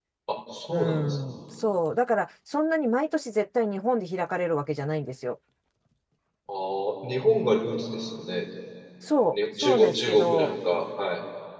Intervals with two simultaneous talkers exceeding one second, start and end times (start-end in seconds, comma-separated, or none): 9.3-10.5